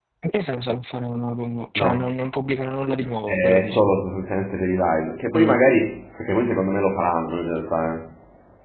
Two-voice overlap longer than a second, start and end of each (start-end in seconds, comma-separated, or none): none